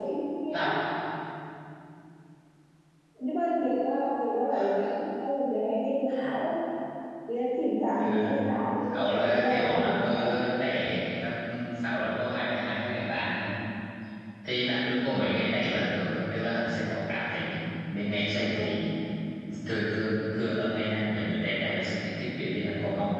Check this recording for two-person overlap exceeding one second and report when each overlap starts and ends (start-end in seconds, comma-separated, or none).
8.9-10.4